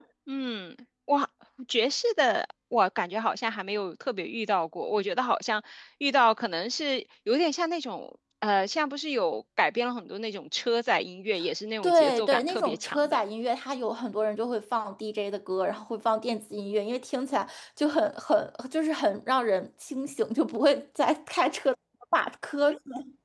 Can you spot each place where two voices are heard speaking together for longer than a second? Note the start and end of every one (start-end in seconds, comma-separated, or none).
11.8-13.2